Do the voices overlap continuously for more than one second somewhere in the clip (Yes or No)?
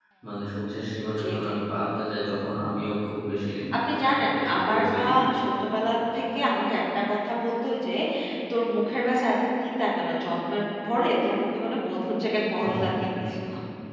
Yes